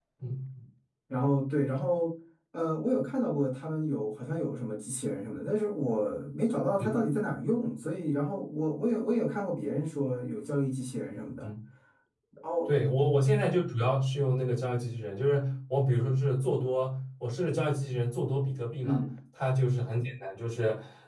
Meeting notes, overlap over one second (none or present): none